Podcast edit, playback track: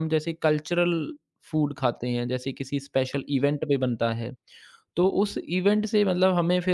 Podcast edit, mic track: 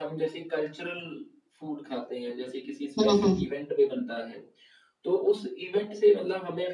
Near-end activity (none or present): present